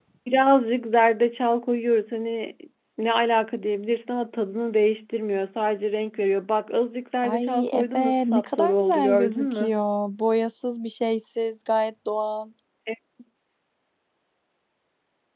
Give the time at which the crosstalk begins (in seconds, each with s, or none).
7.2 s